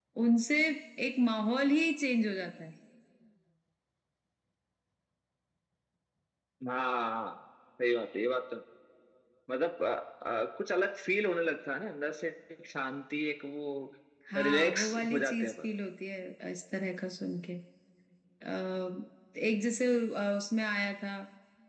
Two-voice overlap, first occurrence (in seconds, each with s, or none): 14.3 s